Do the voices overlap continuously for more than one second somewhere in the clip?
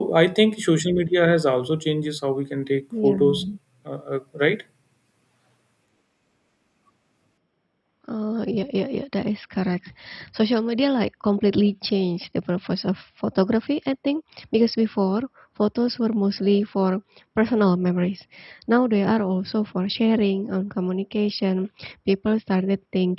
No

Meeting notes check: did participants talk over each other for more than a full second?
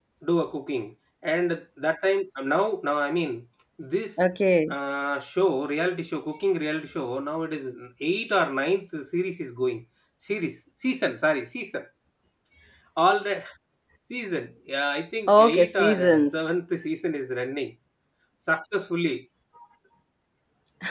Yes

